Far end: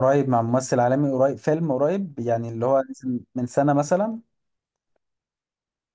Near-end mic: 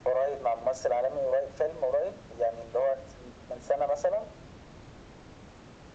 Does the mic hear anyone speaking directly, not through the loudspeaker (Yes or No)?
No